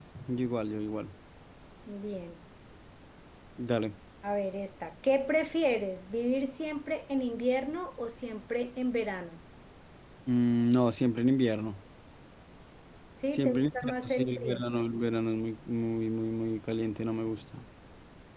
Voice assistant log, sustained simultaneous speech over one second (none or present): present